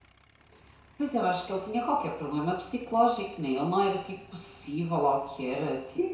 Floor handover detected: Yes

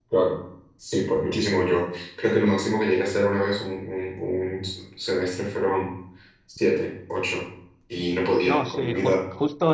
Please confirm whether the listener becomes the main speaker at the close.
Yes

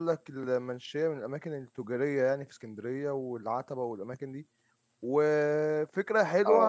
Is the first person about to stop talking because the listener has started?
No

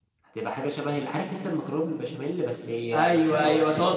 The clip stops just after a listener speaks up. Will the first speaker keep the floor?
No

